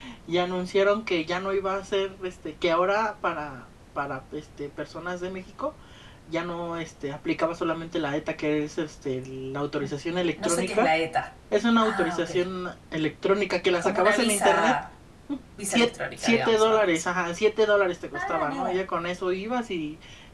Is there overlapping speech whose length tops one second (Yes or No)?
Yes